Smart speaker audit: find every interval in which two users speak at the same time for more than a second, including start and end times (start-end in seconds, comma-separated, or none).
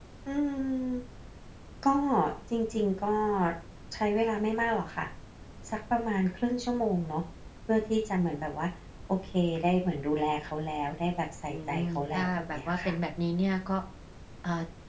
11.5-12.9